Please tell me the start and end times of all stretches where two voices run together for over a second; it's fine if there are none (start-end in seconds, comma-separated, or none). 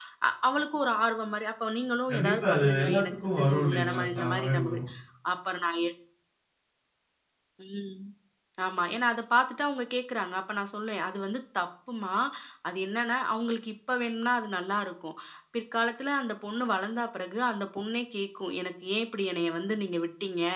2.1-4.6